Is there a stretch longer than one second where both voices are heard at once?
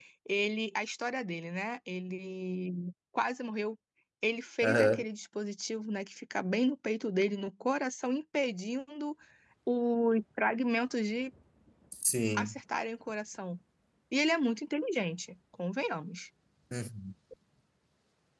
No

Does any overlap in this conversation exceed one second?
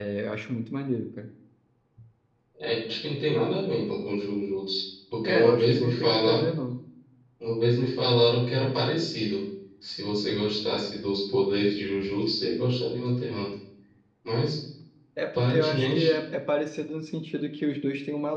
Yes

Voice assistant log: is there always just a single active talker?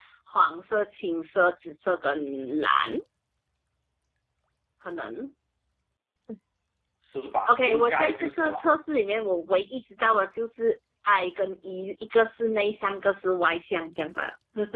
No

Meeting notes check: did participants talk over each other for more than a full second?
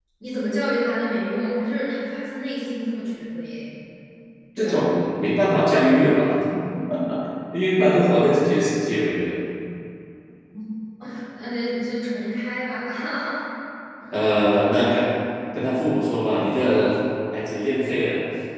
No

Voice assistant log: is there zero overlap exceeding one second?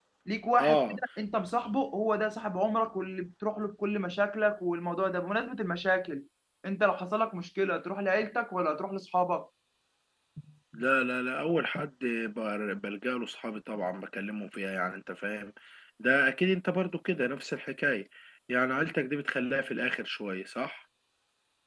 Yes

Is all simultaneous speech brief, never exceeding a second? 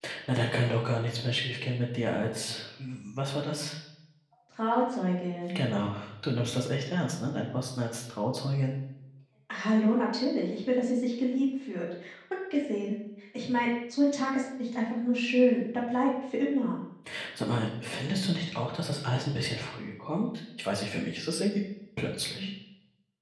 Yes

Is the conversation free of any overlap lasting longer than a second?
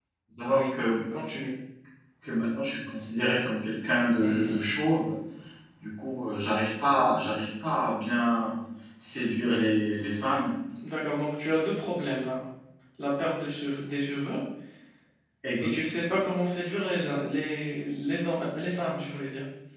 Yes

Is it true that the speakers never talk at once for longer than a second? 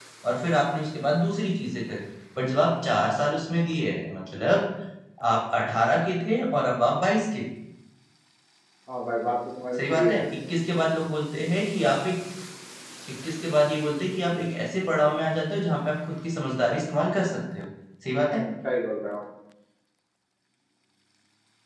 Yes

